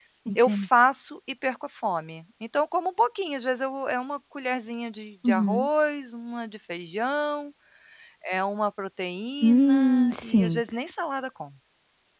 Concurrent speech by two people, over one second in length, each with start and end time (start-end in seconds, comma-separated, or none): 9.4-10.6